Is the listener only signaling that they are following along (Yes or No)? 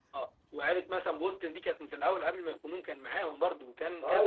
No